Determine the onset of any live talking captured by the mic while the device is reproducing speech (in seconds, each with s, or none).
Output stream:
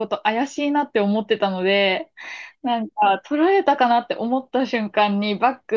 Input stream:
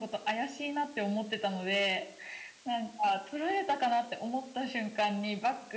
none